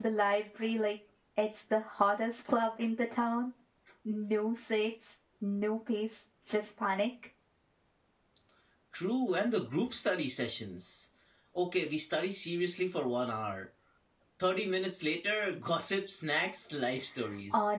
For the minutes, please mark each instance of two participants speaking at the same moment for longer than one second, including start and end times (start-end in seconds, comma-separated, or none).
none